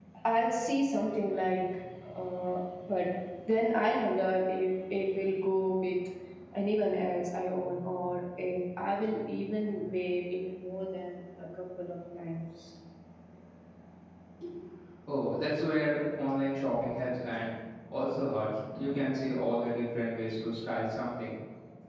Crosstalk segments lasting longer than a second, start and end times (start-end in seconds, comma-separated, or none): none